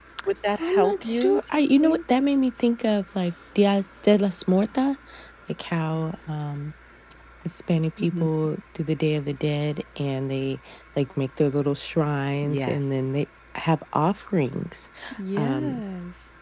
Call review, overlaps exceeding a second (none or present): present